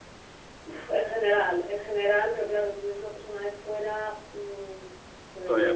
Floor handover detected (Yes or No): No